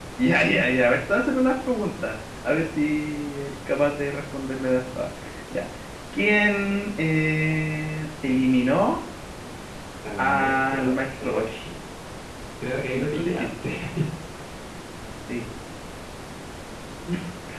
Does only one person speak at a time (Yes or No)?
No